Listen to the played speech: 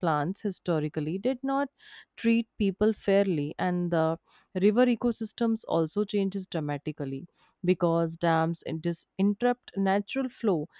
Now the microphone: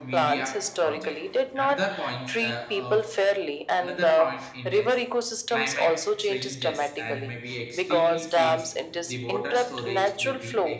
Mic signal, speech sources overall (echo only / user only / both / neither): both